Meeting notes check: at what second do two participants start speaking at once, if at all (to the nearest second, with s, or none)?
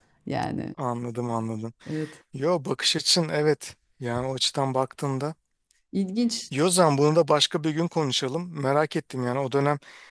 none